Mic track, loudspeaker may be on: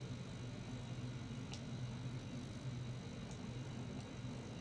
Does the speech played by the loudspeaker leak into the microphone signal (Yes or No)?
No